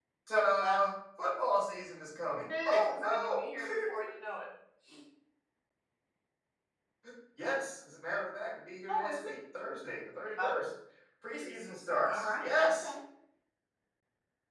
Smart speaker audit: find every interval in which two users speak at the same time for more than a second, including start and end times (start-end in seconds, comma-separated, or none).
2.5-4.0, 11.4-12.9